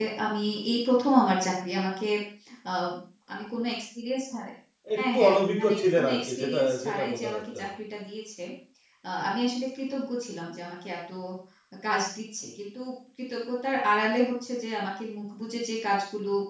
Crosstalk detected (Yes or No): Yes